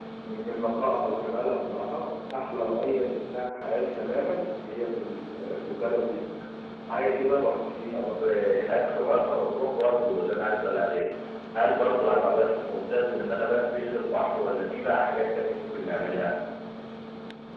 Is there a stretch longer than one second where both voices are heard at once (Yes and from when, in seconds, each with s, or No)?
No